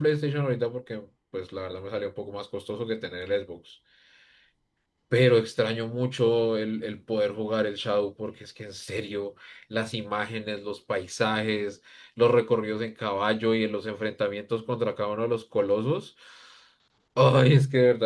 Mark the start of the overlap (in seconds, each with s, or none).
none